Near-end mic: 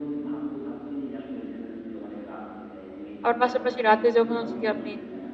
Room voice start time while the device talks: 3 s

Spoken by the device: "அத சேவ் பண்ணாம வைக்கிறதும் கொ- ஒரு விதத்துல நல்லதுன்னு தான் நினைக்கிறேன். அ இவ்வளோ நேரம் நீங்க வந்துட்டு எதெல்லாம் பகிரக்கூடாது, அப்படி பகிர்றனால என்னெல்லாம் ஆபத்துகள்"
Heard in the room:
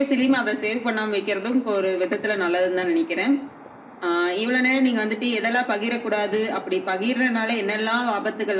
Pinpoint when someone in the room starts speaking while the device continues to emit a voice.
none

